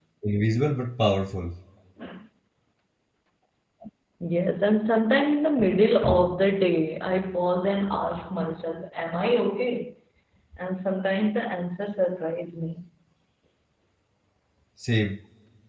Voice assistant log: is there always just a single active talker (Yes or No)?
Yes